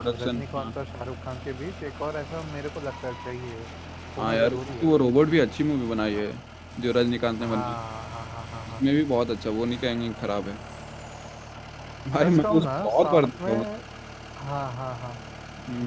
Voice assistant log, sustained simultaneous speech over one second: present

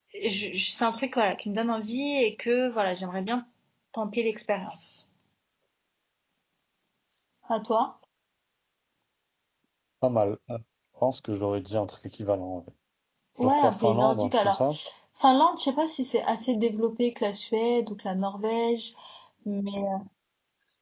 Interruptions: present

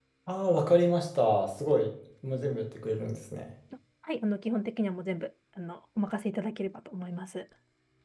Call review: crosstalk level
none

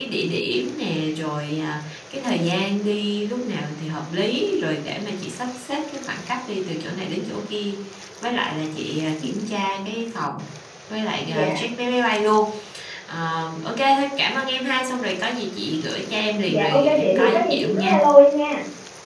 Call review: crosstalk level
present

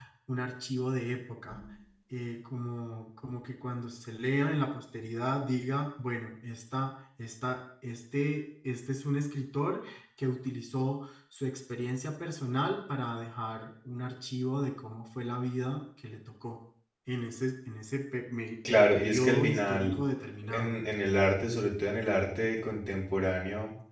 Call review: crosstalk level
present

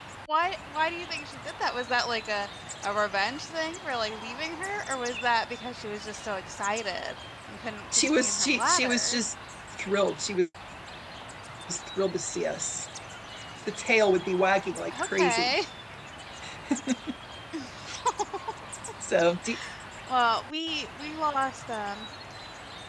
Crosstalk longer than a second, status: present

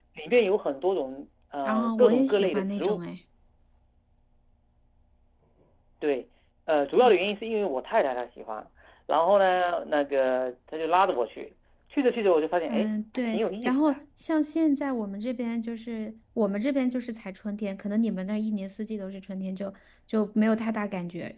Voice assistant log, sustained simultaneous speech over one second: present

